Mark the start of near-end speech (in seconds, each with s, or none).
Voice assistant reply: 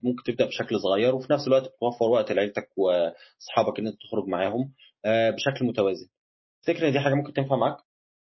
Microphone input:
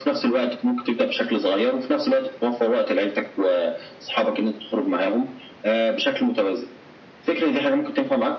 none